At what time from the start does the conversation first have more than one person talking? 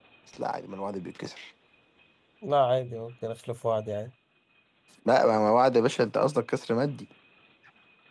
none

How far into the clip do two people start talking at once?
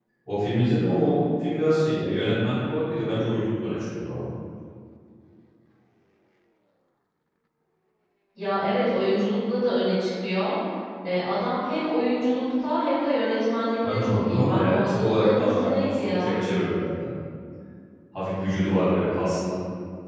13.8 s

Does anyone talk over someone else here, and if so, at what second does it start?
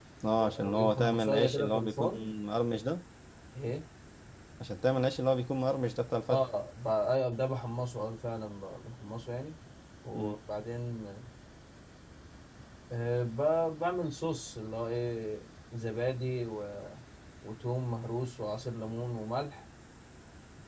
0.6 s

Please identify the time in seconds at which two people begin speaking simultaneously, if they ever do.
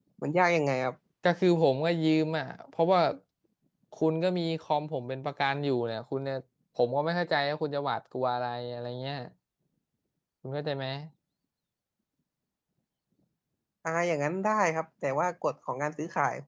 none

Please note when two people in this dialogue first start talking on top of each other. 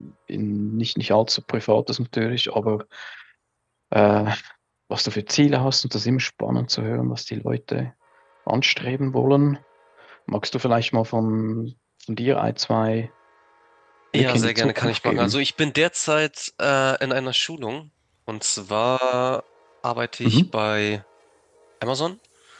14.2 s

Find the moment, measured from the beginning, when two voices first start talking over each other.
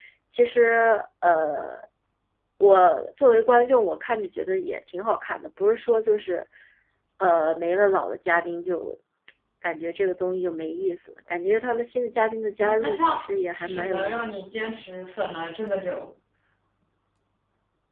12.6 s

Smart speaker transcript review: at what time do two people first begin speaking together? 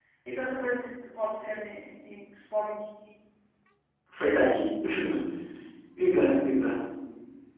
none

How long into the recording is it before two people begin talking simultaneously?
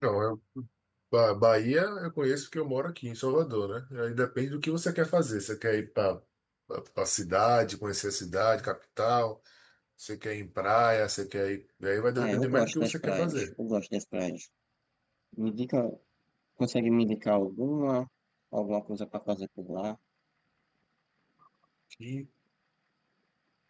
12.2 s

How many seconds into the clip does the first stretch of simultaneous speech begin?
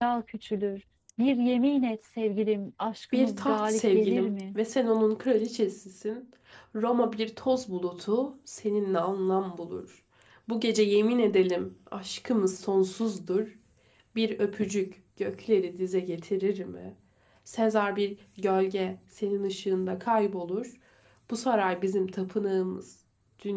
3.1 s

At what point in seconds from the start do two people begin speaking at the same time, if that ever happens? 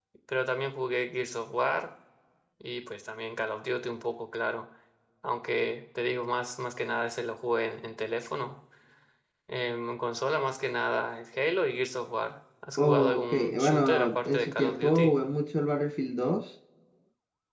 12.8 s

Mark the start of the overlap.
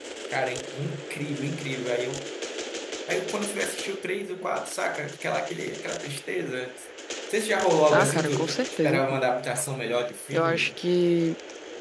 7.9 s

